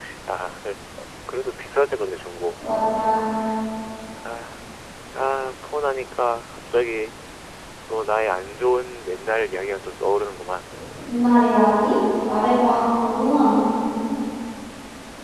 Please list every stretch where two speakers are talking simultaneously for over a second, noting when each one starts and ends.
none

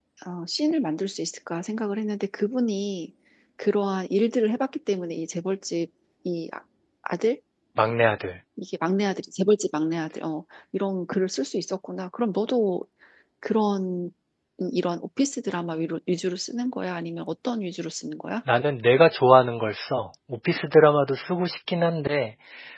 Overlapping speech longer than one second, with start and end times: none

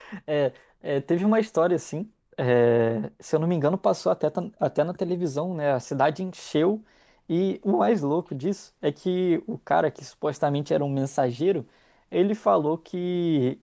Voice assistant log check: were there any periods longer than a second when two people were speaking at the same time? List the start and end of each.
none

